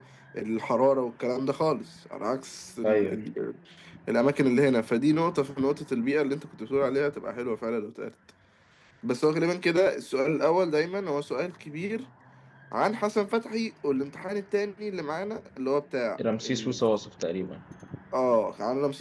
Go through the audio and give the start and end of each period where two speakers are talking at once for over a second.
none

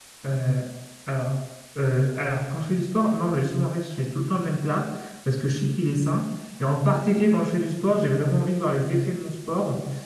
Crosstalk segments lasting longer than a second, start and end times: none

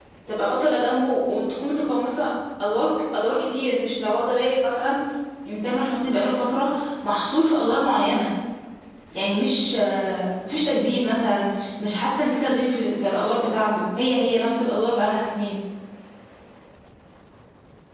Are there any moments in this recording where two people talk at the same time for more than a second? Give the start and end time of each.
none

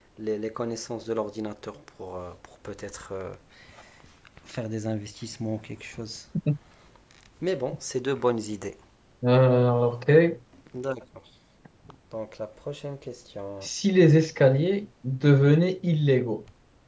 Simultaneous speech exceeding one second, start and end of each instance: none

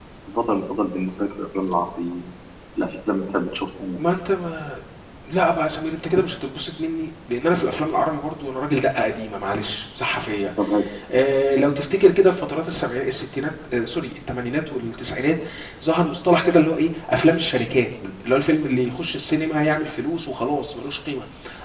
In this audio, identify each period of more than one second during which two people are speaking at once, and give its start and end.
none

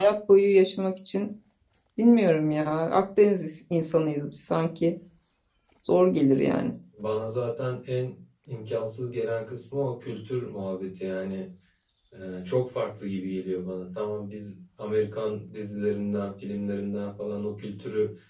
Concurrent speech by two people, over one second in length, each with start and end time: none

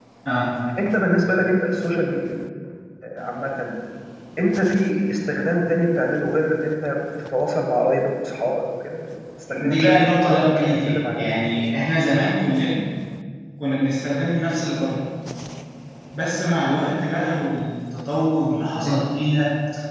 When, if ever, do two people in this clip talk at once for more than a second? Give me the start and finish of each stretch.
9.7-11.3

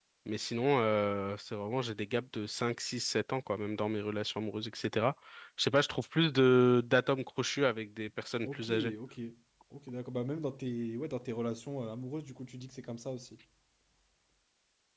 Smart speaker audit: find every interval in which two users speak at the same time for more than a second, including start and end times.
none

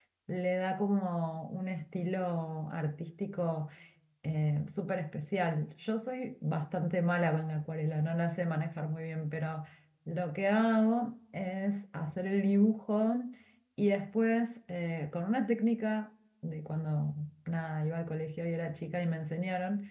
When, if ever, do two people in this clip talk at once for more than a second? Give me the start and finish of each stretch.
none

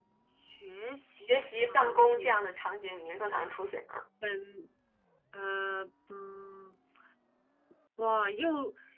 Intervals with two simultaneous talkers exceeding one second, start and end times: 1.2-2.4

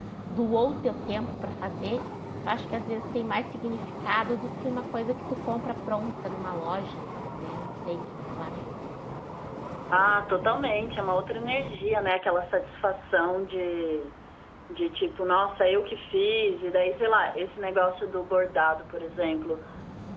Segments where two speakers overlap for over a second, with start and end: none

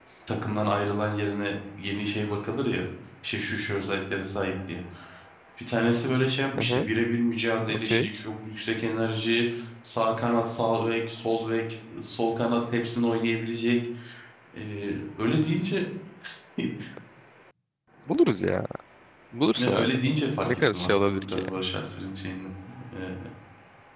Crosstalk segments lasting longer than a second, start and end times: 19.6-21.4

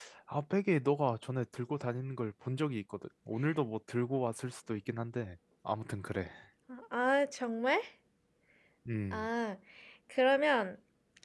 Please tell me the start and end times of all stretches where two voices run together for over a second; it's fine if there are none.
none

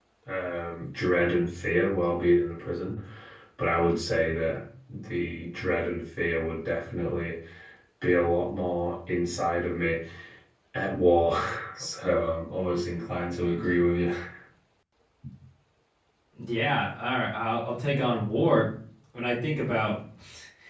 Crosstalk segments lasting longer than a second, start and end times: none

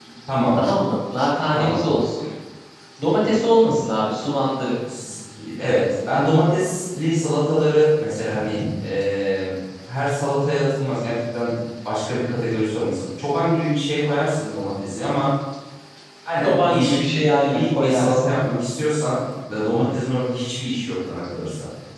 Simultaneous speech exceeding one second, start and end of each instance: 16.4-18.3

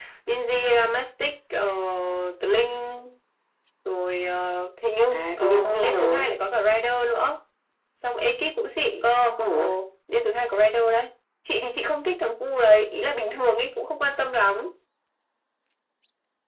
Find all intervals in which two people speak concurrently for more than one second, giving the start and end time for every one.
5.1-6.3

